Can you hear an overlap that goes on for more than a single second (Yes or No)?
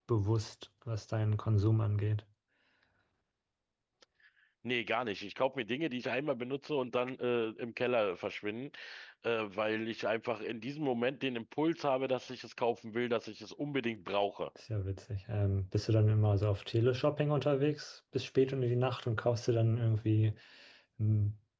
No